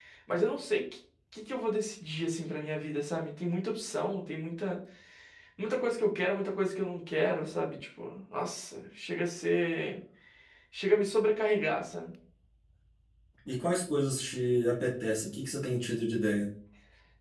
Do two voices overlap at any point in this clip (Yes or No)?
No